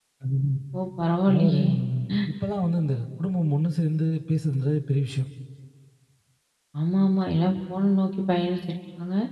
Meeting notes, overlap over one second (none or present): none